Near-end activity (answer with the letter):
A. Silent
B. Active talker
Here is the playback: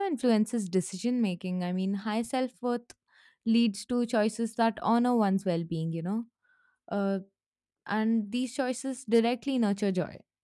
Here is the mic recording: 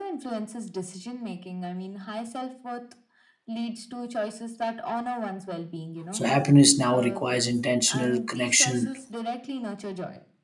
B